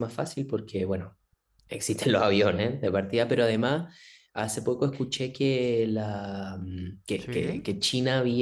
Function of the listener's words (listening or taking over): listening